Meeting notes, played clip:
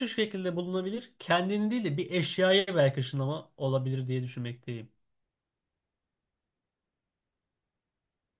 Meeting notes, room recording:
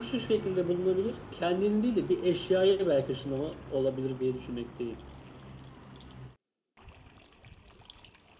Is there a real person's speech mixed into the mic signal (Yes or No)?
No